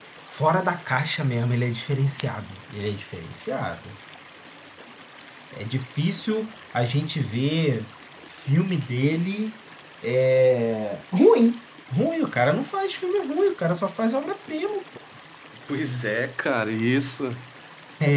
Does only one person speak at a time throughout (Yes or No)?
Yes